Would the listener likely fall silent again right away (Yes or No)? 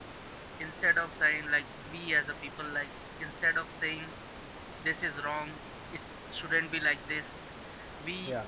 Yes